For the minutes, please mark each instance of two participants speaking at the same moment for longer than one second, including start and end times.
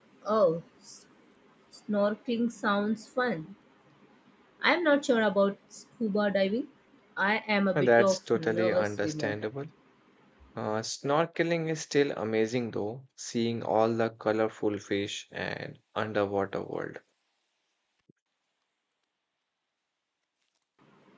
7.8-9.4

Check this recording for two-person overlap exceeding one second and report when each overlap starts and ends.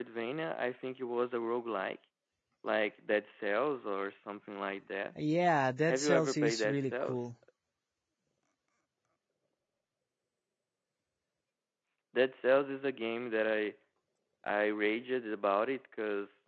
5.9-7.2

